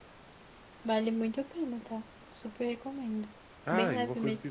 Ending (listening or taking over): taking over